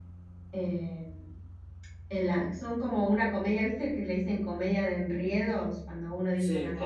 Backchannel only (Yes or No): Yes